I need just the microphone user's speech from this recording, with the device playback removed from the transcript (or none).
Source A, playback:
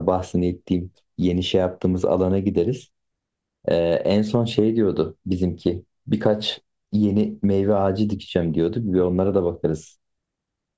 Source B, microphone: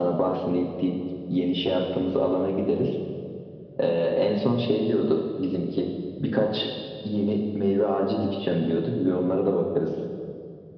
none